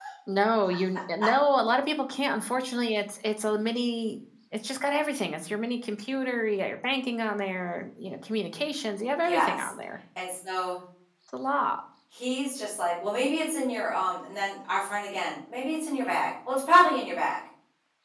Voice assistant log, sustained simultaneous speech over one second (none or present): none